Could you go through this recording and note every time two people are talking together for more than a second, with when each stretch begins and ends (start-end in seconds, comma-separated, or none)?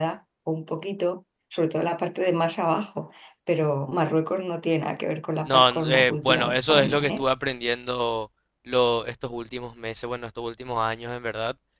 5.5-7.2